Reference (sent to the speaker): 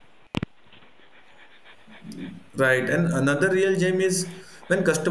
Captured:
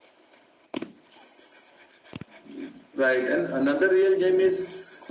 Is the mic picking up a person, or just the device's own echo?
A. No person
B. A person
A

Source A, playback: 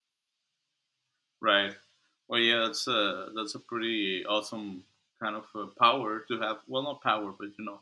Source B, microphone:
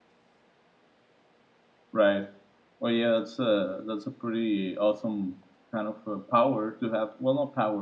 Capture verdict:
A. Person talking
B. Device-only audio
B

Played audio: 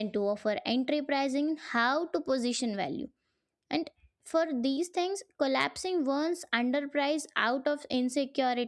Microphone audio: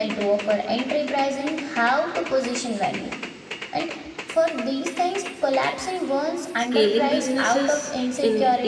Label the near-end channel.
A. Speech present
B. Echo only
A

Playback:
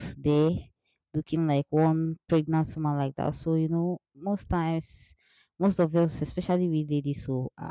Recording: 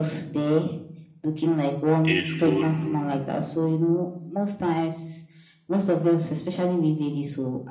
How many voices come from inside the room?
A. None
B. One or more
B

